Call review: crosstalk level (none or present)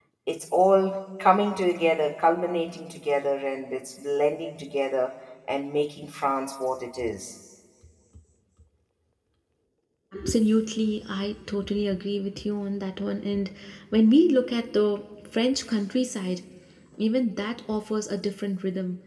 none